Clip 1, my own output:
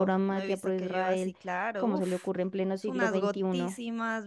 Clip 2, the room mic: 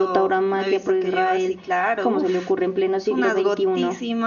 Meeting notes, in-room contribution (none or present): none